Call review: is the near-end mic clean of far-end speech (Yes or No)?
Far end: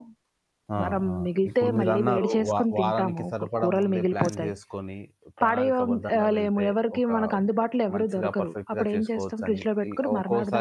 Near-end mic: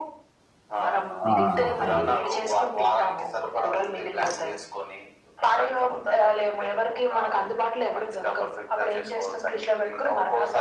No